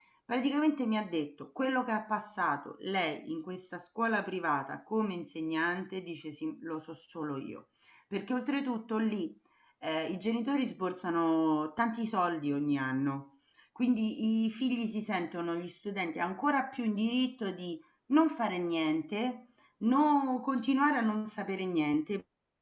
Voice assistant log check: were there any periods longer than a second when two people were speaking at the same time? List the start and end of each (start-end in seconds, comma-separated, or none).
none